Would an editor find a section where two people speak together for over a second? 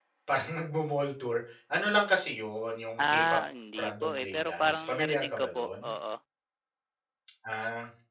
Yes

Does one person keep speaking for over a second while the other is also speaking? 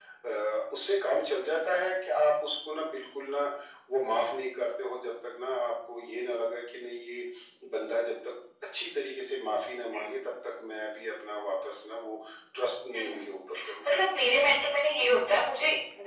No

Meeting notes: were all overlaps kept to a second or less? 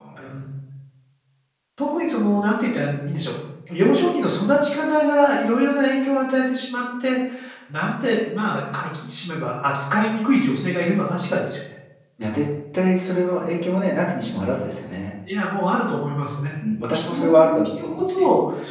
No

